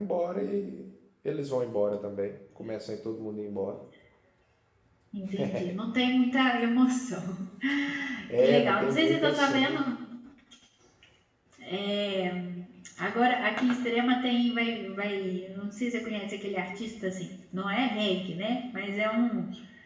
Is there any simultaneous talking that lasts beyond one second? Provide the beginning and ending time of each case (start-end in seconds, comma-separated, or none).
8.4-9.9